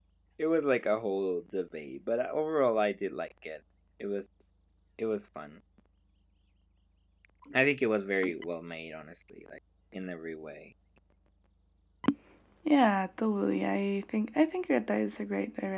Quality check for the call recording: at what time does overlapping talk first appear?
none

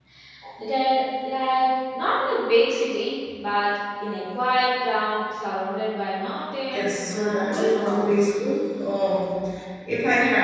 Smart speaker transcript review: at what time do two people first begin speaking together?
6.7 s

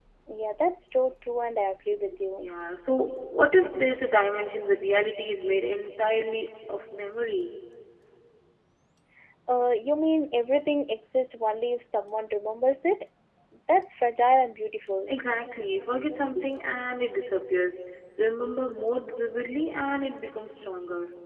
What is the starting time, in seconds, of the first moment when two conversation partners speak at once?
none

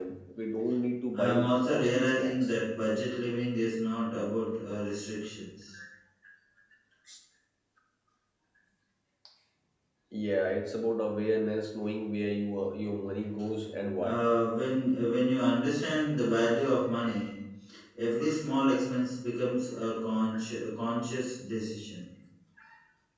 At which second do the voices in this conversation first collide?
1.1 s

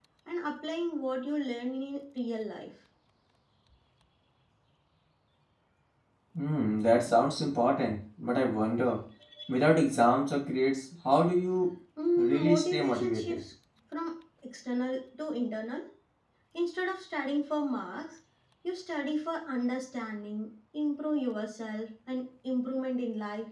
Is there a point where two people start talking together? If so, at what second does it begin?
12.2 s

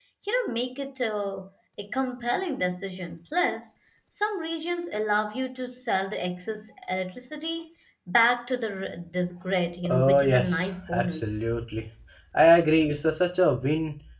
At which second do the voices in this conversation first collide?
9.8 s

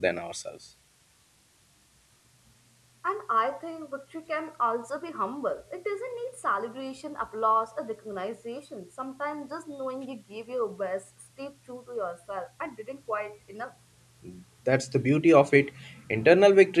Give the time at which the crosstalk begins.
none

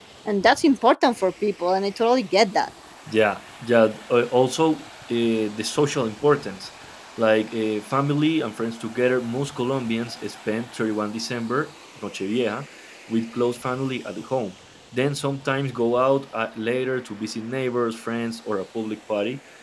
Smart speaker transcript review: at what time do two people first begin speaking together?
none

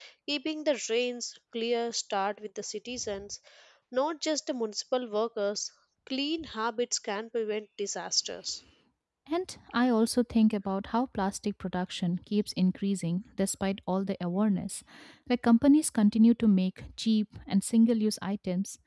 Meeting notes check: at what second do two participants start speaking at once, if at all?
none

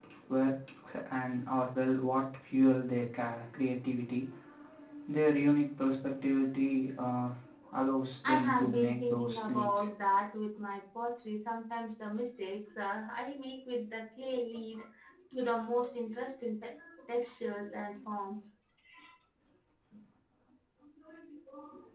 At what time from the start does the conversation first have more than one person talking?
8.2 s

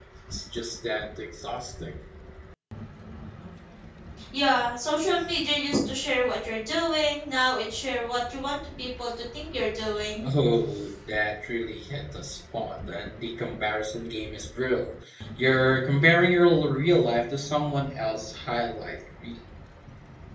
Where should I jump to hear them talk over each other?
none

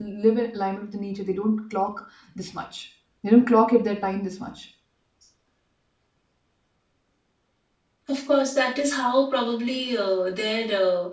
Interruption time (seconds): none

